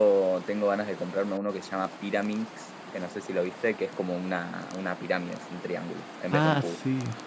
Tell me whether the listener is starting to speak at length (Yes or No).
Yes